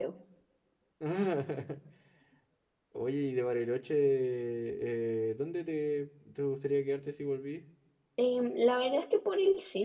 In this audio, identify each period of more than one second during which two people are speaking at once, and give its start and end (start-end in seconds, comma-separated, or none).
none